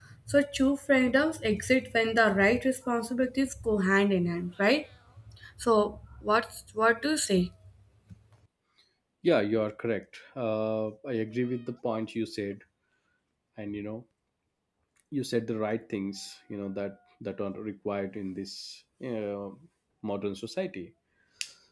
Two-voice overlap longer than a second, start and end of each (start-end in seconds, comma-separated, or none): none